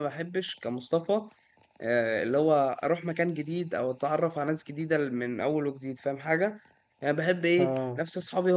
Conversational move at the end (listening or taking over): listening